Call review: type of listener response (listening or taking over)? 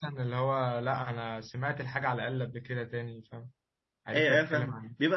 taking over